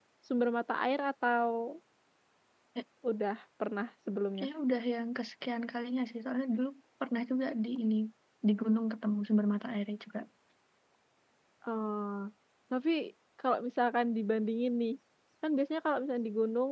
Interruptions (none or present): none